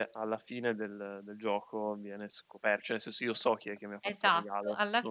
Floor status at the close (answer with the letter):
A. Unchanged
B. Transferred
B